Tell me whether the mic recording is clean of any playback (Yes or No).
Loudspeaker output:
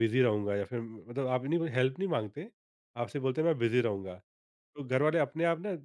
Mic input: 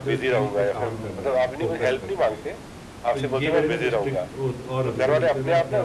No